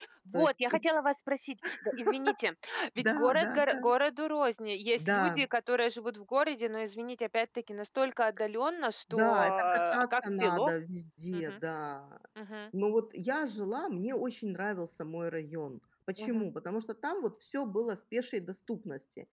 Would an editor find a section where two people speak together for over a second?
Yes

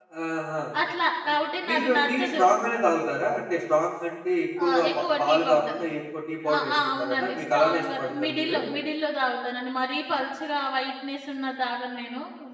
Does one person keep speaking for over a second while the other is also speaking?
Yes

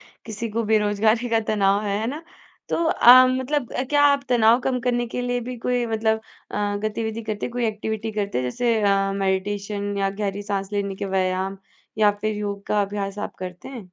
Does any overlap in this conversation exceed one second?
No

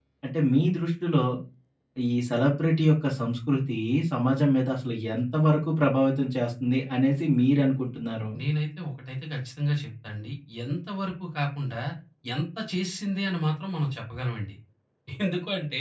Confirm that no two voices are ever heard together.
Yes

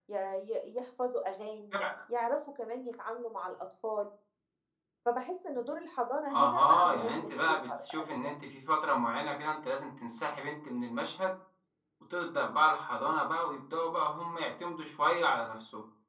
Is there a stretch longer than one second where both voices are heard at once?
Yes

